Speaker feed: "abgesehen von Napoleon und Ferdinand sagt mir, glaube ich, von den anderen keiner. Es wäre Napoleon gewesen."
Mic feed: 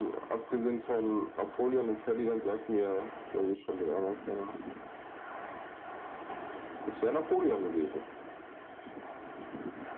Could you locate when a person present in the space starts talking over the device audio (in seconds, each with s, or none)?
none